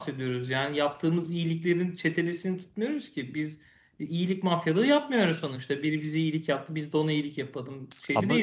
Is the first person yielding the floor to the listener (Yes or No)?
No